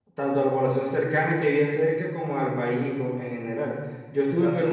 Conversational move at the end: listening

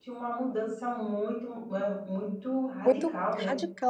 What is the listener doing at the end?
taking over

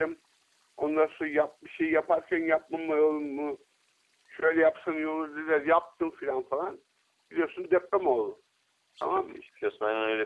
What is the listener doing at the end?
taking over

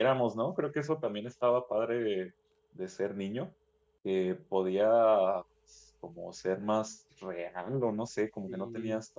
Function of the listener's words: listening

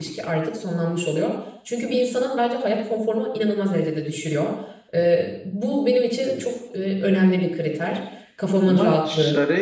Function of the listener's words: taking over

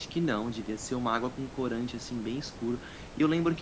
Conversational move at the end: listening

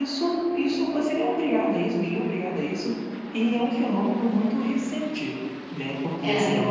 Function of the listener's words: listening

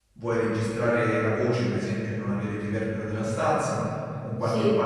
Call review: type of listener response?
listening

